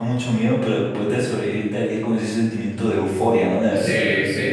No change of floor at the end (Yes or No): No